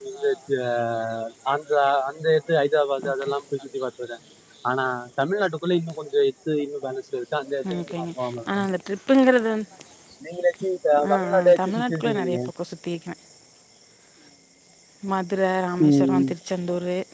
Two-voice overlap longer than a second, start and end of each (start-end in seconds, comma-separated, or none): 11.1-12.4